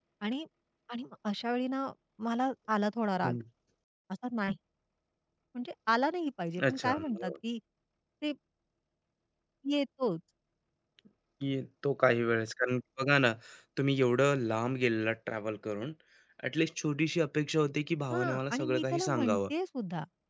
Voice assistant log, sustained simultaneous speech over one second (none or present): present